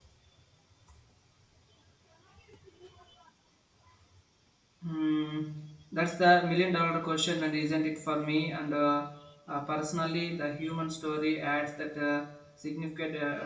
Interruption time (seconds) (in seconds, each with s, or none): none